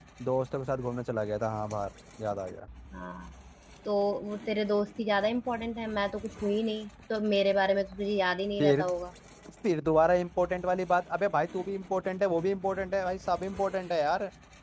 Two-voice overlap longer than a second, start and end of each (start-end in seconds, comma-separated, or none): none